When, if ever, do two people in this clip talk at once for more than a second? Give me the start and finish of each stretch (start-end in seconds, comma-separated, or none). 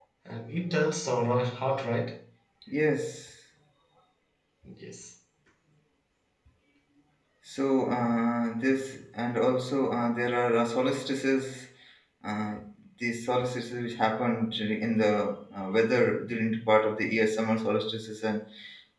none